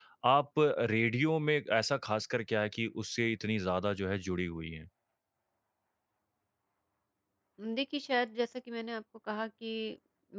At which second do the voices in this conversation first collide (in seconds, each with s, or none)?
none